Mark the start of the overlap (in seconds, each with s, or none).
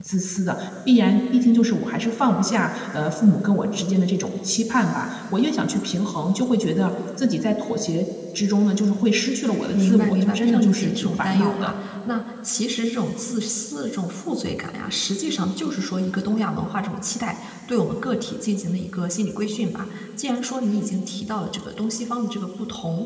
9.7 s